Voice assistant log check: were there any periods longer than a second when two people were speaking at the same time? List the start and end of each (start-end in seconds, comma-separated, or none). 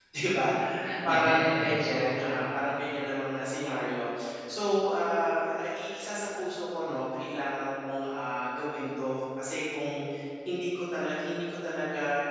1.0-2.5